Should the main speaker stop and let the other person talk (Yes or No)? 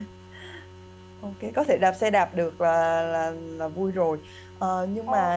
No